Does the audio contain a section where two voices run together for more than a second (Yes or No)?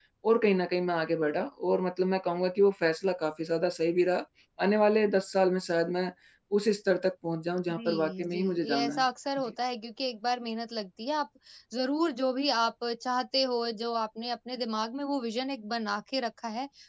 Yes